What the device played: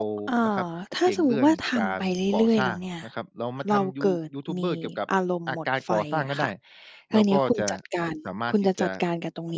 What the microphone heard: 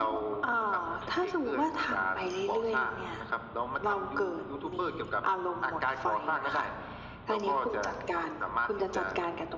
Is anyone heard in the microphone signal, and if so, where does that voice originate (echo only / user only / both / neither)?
echo only